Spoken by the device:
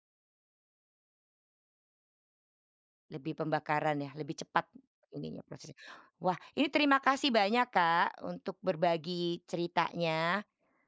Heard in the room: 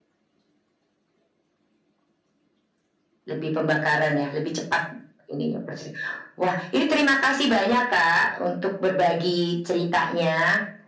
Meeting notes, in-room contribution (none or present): none